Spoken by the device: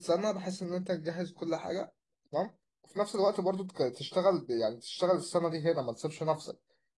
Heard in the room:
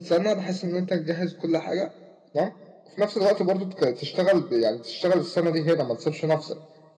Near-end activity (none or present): none